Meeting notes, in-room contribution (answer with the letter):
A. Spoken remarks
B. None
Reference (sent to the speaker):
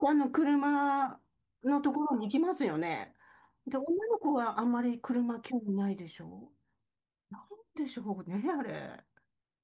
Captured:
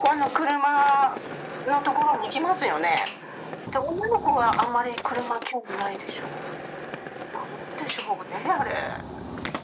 B